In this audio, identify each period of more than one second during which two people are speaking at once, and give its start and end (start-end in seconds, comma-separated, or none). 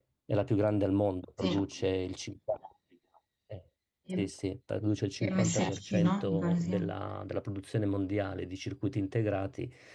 5.2-6.8